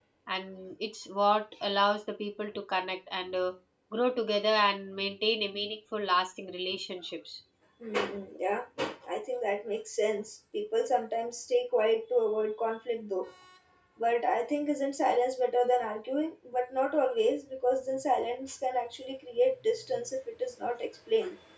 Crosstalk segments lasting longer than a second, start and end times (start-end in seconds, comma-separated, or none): none